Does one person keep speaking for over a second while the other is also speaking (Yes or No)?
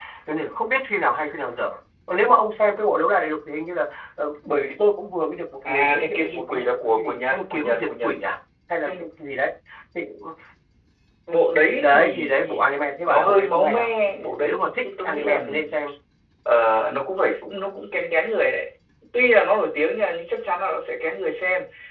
Yes